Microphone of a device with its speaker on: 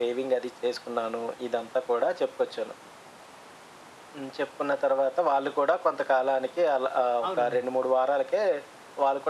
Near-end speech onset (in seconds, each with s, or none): 7.2 s